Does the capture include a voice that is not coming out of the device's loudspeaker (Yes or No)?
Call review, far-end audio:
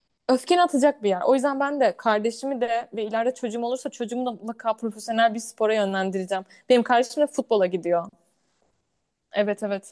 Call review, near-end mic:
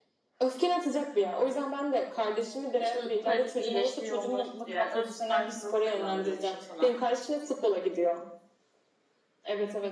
Yes